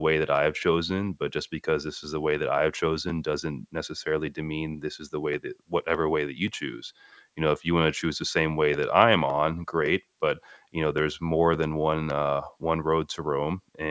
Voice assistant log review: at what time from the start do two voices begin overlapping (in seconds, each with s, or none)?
none